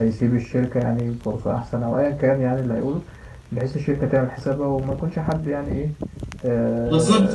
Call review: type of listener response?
taking over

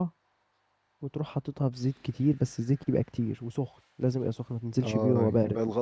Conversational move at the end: taking over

